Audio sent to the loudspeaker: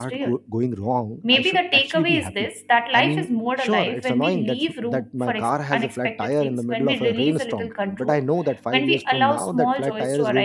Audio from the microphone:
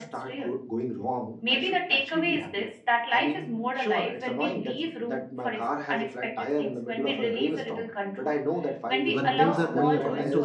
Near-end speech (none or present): present